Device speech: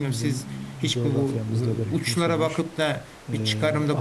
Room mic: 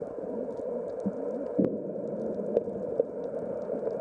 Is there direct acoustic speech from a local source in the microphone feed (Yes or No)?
No